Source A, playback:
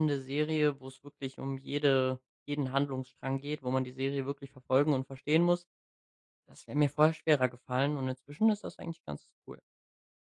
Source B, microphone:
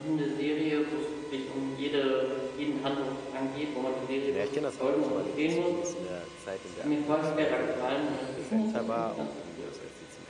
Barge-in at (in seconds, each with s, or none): 4.3 s